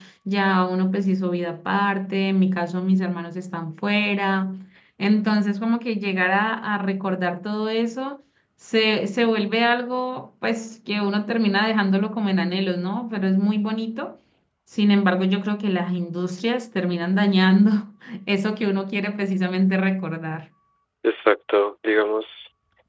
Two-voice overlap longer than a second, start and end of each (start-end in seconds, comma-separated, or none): none